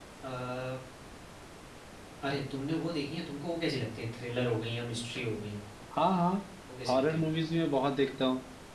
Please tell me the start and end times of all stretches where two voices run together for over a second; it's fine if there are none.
none

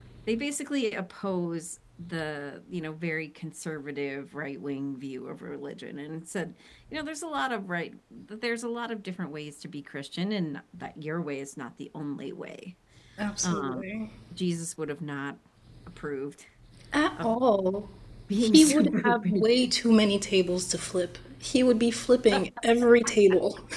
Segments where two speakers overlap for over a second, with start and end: 18.4-19.7

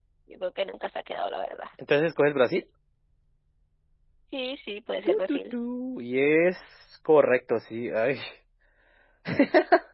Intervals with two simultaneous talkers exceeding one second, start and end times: none

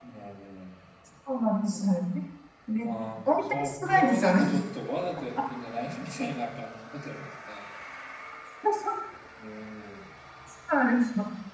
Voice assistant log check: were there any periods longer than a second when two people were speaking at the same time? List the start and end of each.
3.2-4.5

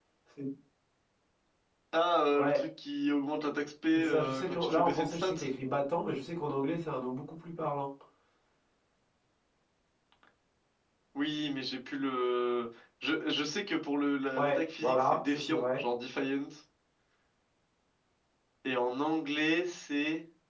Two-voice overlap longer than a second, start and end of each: 3.9-5.3, 14.3-15.8

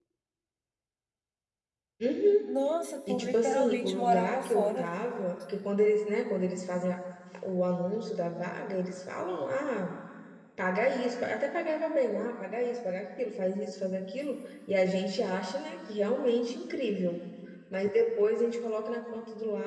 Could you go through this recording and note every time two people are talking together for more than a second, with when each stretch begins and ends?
3.1-4.9

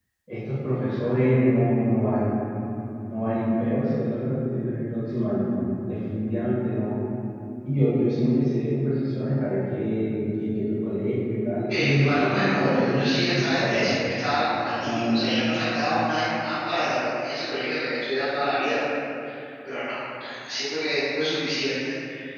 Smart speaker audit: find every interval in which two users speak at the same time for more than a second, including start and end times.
11.7-13.9

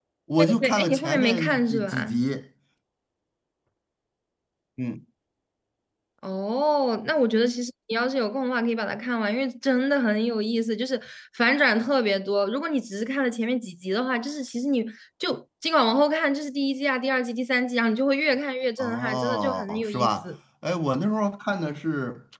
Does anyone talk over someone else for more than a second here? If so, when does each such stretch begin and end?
0.6-2.2, 18.8-20.3

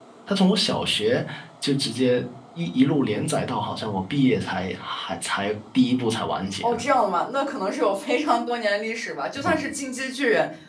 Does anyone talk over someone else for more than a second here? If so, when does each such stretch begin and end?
none

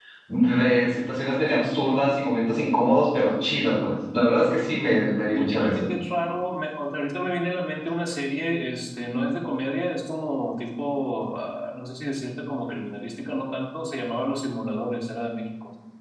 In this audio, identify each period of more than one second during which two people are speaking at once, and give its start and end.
none

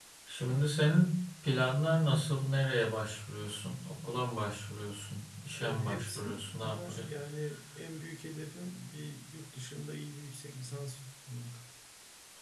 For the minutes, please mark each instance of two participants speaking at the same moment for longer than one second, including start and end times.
5.6-7.0

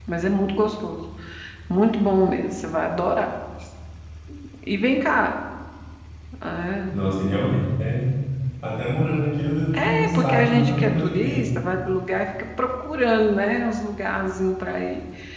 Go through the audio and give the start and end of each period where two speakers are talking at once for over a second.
9.7-11.5

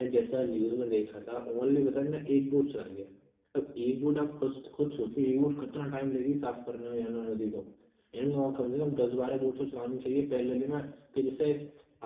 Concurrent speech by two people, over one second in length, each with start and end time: none

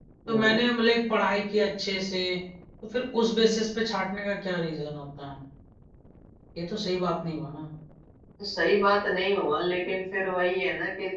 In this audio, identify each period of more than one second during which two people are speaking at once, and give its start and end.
none

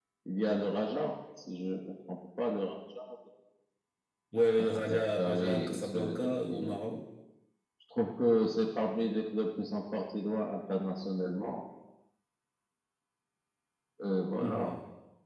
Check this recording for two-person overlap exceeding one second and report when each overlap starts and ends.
4.6-6.8

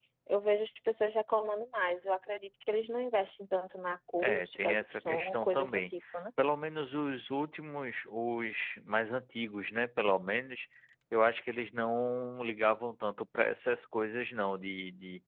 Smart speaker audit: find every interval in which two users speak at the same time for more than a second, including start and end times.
4.2-5.8

